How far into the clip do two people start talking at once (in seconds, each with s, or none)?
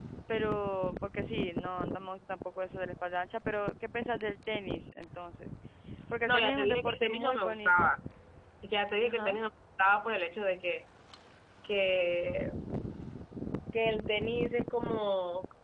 6.3 s